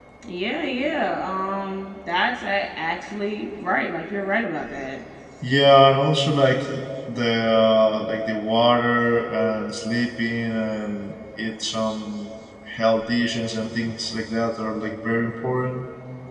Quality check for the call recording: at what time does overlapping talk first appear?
none

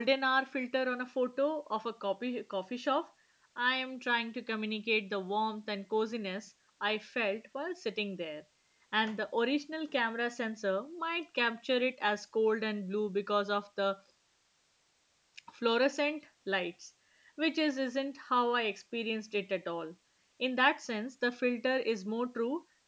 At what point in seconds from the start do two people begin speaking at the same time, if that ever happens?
none

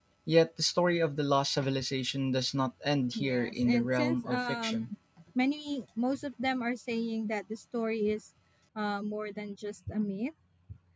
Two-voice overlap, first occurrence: 3.1 s

